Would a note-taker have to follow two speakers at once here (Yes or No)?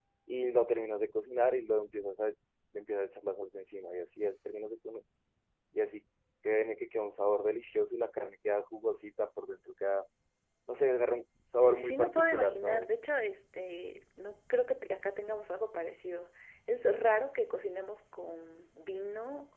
Yes